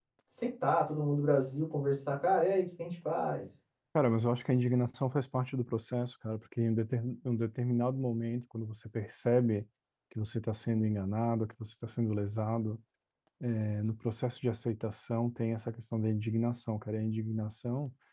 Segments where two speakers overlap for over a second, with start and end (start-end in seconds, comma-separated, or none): none